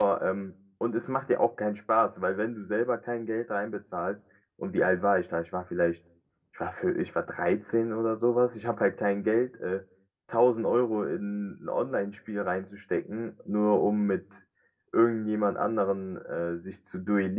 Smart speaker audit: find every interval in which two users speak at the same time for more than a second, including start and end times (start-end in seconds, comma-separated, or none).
none